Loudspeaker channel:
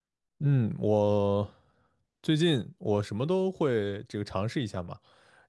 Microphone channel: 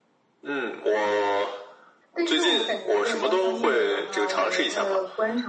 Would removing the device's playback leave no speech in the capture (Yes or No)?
No